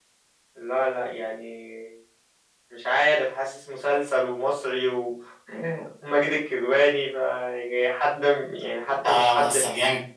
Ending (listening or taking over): taking over